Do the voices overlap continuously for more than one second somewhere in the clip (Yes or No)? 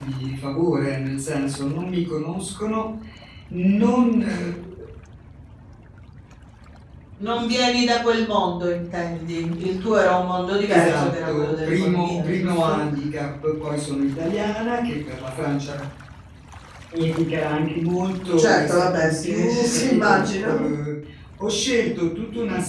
Yes